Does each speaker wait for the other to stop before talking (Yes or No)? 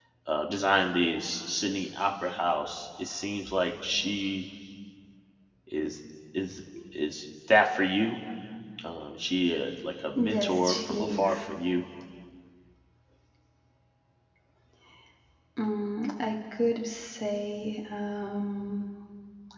No